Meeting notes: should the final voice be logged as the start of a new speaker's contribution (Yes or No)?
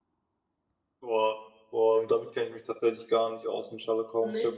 No